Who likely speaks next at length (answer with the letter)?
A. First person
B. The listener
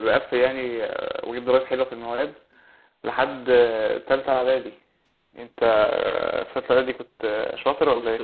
B